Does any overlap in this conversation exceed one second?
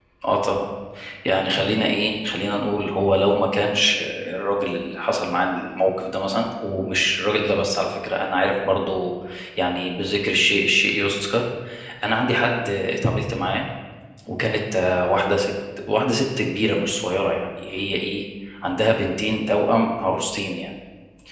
No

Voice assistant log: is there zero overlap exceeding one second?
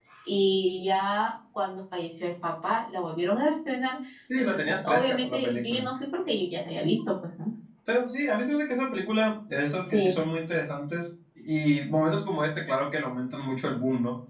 No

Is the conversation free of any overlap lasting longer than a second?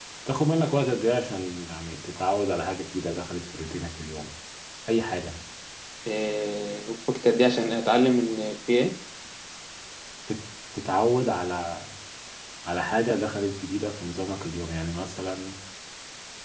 Yes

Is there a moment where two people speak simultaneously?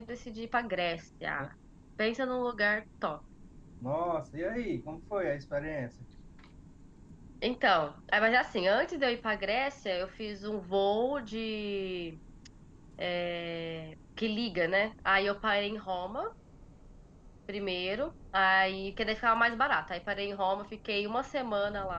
No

